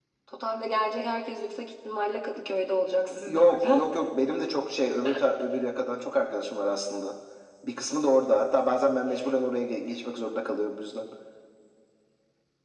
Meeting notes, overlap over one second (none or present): none